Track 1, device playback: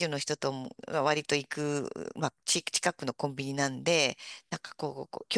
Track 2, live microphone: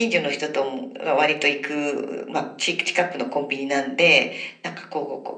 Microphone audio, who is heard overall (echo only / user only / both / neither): echo only